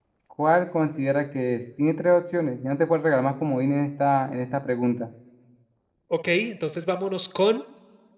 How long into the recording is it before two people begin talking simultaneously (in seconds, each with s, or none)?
none